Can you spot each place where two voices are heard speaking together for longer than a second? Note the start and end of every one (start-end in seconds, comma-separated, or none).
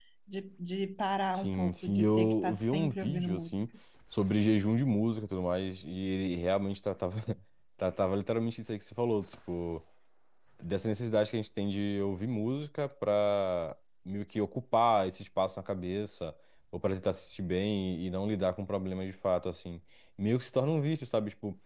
1.3-3.6